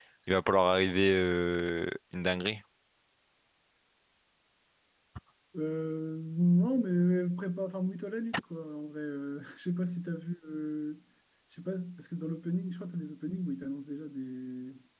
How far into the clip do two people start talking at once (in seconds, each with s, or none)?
none